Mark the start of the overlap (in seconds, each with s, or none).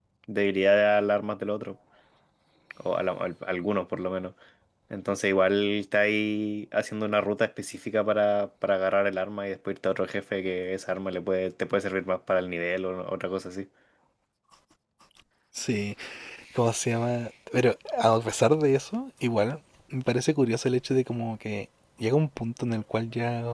none